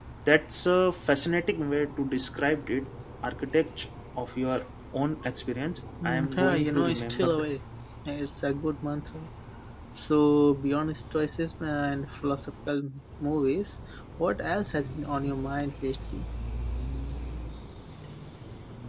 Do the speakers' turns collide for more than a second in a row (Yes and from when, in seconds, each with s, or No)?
Yes, from 6.0 s